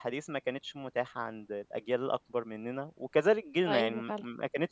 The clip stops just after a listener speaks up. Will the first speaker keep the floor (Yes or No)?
Yes